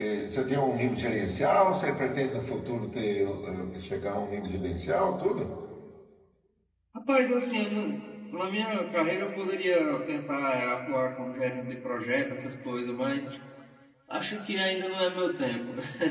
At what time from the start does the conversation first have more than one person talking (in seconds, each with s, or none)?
none